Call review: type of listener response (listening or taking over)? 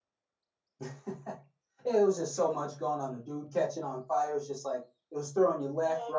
taking over